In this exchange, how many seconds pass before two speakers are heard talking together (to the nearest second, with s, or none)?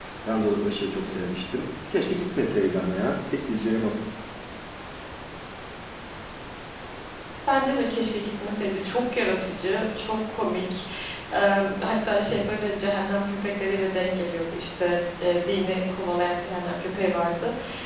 none